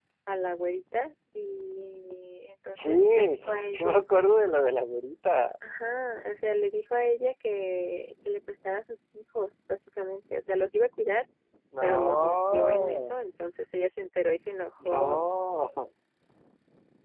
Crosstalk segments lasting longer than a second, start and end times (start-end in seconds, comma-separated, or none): 2.7-4.0, 11.8-13.2